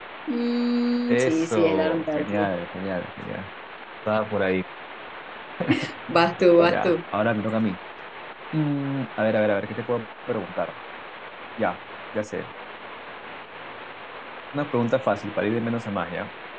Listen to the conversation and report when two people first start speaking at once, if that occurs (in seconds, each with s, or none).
1.1 s